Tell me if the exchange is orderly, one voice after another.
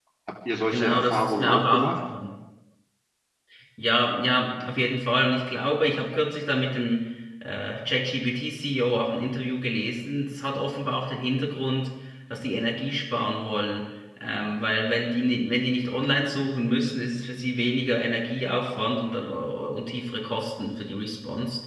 No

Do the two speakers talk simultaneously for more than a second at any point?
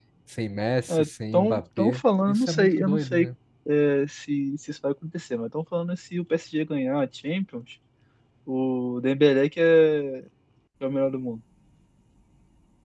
Yes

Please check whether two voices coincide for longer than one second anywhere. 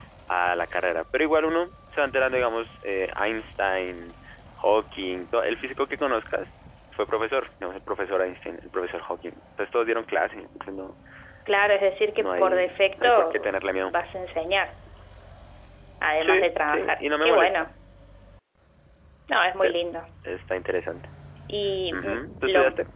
Yes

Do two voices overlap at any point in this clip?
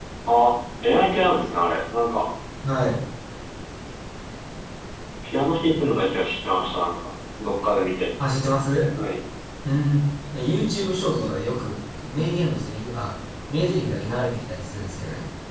No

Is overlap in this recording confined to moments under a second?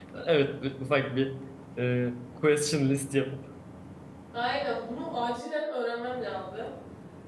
Yes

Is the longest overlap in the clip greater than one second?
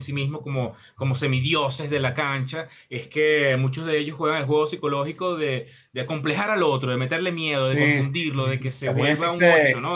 Yes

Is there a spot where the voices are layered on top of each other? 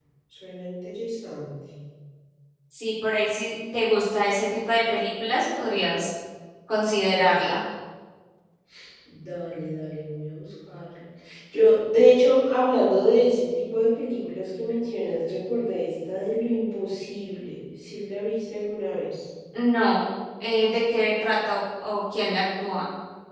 No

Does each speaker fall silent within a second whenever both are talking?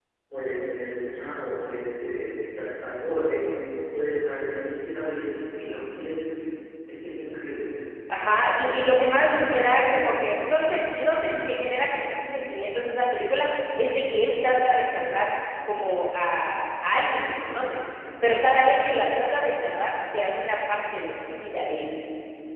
Yes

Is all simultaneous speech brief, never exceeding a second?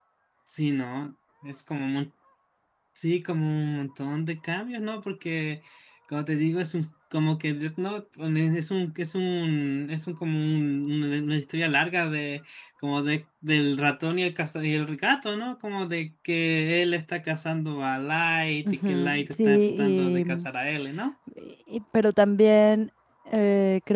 No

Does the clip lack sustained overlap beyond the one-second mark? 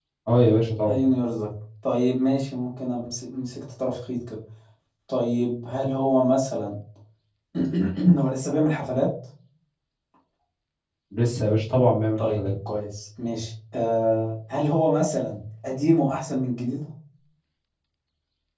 Yes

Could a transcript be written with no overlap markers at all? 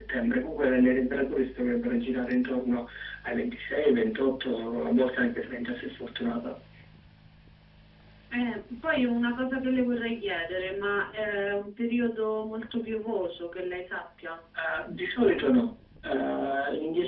Yes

